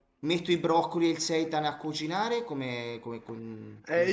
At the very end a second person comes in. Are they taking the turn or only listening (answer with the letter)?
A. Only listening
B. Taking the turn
B